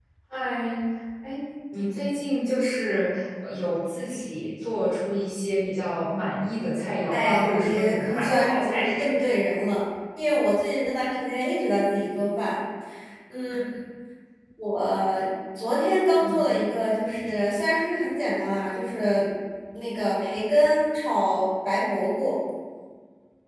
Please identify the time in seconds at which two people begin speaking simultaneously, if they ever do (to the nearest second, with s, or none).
7 s